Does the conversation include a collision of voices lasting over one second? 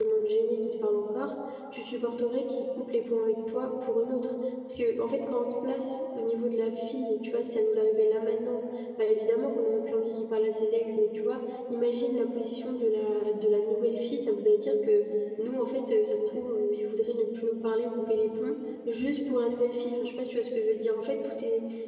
No

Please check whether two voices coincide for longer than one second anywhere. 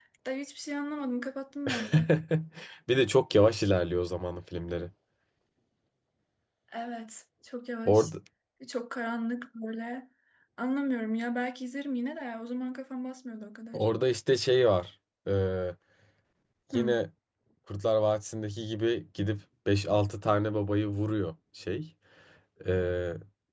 No

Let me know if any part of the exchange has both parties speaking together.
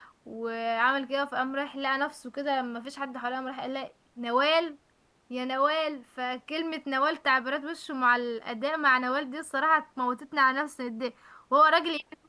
No

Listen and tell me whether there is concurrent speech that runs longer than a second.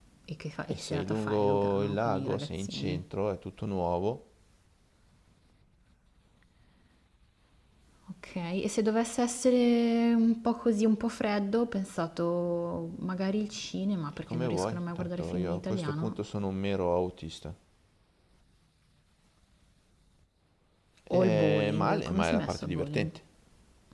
Yes, from 0.7 s

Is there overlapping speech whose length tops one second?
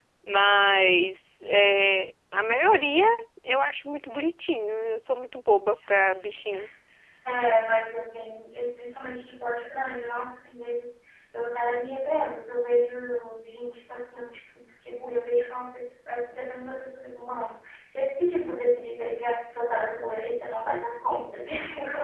No

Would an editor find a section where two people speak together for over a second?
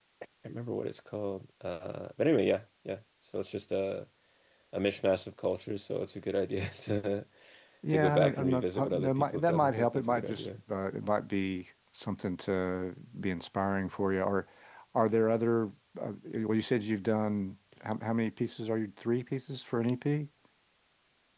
Yes, from 7.9 s

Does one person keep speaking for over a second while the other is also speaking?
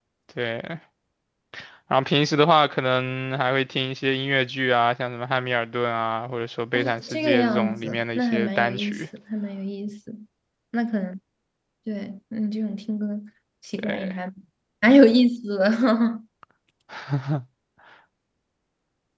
Yes, from 6.7 s

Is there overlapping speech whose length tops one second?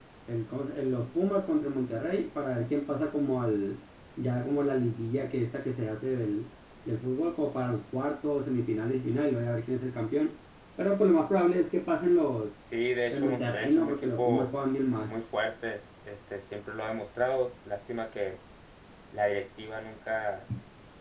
Yes, from 13.1 s

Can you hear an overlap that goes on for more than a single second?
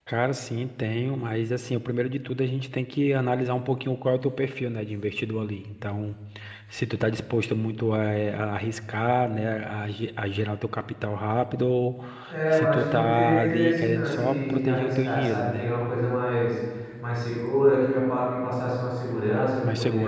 Yes, from 12.5 s

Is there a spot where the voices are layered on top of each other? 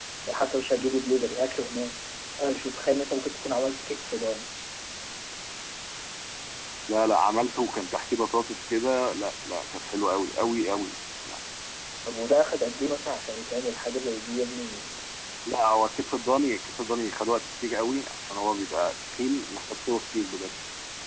No

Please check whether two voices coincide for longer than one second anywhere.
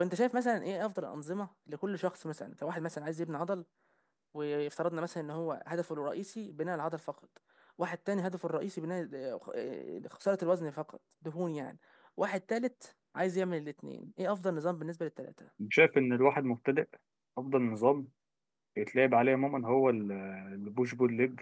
No

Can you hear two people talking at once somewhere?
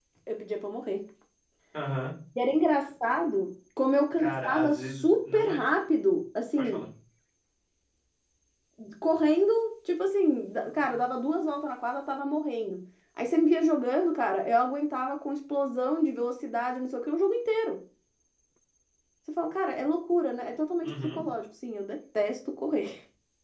Yes, from 4.2 s

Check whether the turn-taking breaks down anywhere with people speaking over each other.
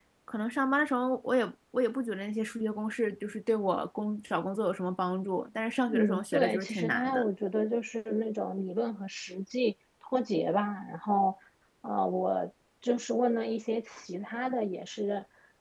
Yes, from 5.9 s

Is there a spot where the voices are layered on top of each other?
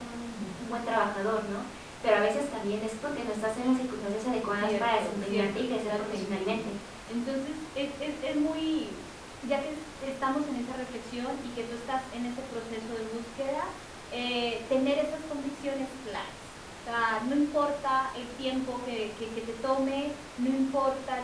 Yes, from 4.6 s

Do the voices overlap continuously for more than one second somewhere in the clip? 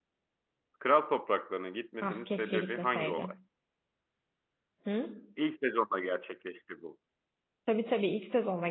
Yes, from 2.0 s

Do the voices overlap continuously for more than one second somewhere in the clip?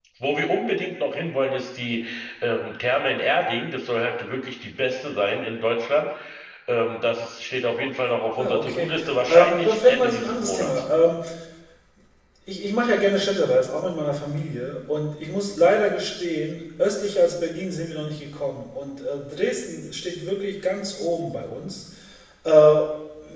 Yes, from 8.4 s

